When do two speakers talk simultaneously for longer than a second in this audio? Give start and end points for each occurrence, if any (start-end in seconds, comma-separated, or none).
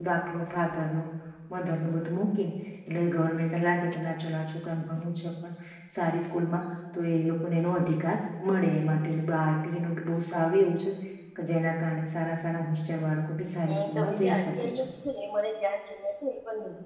13.7-14.9